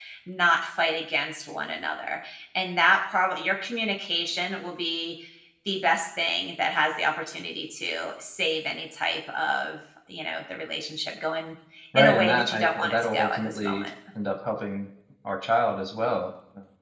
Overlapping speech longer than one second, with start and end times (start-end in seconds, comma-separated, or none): 12.0-13.9